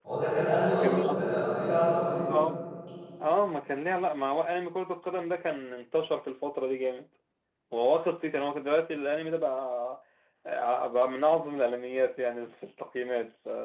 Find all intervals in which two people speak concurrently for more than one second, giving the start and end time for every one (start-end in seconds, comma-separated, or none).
none